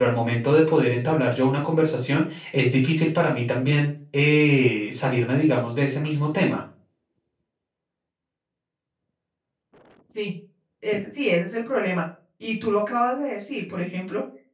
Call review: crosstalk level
none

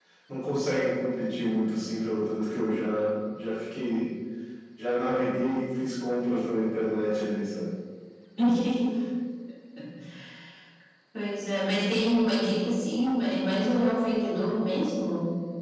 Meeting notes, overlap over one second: none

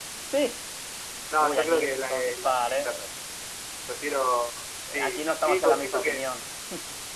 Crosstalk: present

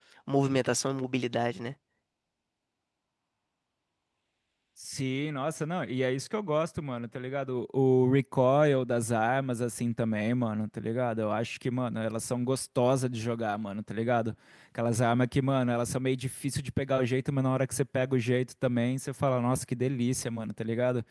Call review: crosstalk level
none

